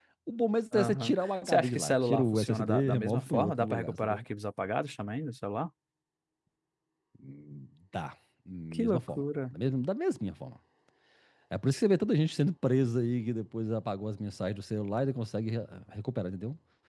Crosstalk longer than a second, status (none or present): present